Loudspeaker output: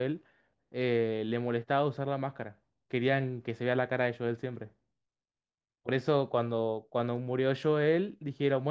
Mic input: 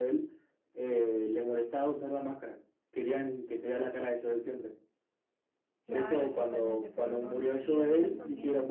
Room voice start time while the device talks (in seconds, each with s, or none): 5.8 s